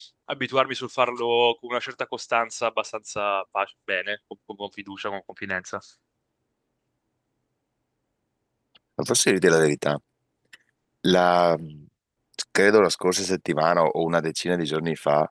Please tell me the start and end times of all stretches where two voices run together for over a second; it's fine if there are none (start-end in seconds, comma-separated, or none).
none